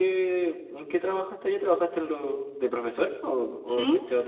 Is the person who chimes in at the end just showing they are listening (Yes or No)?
No